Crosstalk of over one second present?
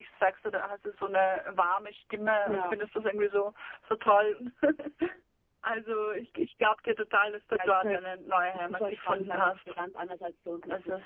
Yes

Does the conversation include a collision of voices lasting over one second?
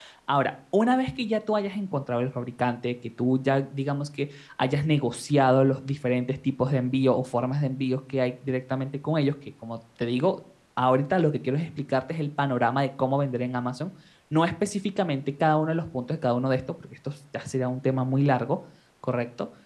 No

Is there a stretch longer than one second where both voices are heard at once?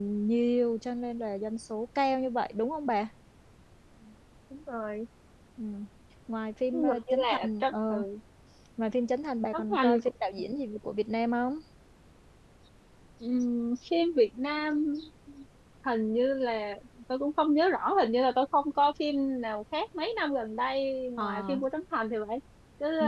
Yes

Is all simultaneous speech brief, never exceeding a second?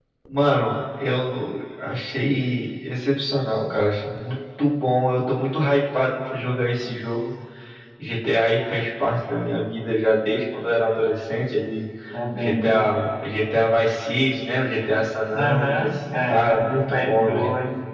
No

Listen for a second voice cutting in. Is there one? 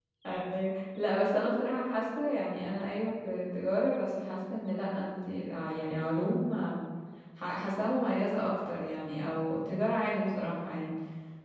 No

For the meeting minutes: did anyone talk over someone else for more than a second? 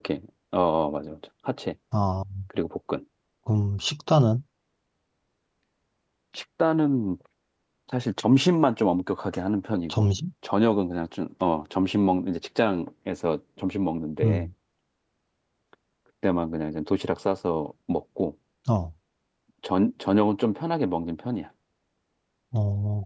No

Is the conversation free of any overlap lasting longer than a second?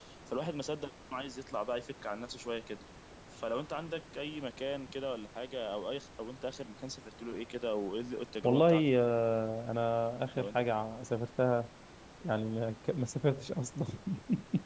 Yes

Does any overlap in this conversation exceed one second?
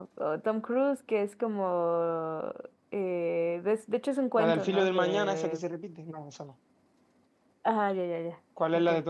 Yes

